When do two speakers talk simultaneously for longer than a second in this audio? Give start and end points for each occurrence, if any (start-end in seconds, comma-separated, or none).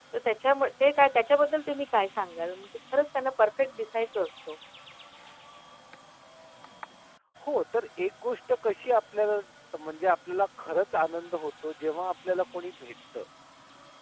none